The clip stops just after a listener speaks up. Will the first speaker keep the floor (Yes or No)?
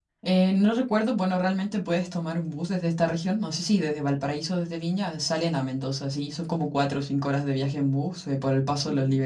Yes